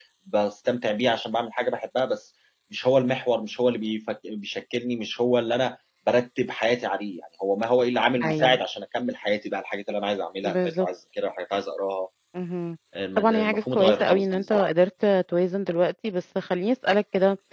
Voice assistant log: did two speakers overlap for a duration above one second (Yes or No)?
Yes